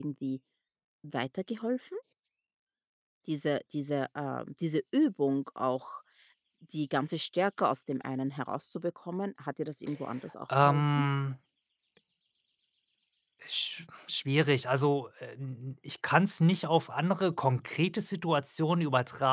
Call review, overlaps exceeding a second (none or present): none